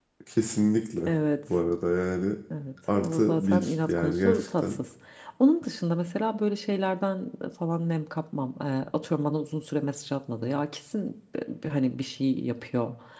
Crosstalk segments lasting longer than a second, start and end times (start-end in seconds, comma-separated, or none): 2.9-4.8